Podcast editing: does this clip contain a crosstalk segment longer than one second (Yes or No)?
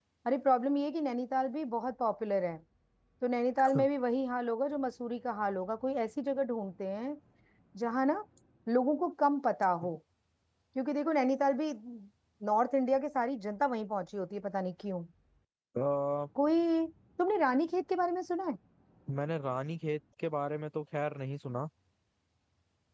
No